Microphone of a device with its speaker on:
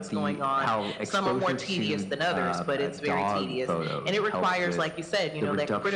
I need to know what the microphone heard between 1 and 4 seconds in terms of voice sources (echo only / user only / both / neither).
echo only